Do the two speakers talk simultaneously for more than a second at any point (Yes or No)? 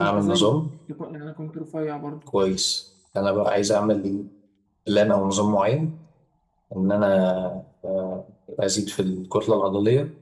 No